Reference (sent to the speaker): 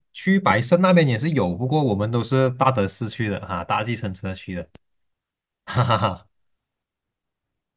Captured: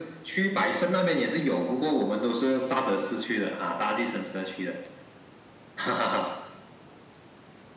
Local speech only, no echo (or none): none